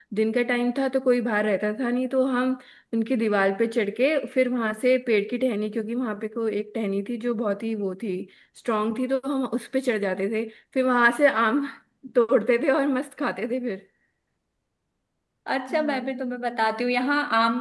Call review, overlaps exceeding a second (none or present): none